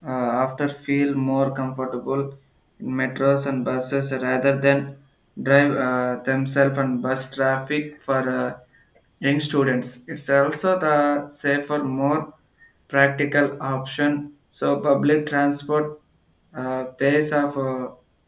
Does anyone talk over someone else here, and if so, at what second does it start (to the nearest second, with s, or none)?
none